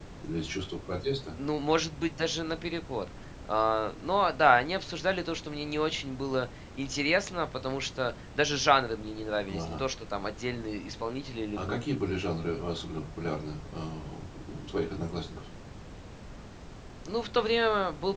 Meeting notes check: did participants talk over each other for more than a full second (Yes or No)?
No